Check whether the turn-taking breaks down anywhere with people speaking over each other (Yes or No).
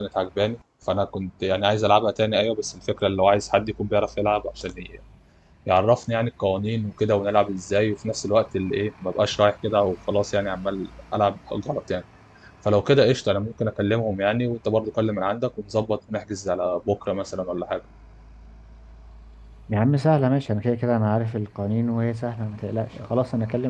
No